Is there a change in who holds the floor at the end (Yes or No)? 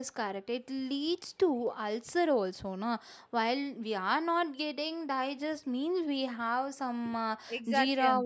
Yes